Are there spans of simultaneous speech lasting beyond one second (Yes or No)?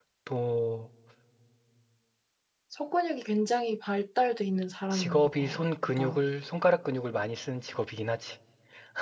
Yes